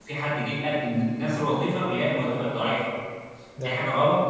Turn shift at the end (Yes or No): No